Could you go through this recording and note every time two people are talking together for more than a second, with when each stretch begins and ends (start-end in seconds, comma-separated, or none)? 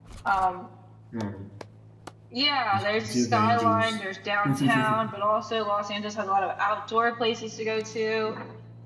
2.7-4.0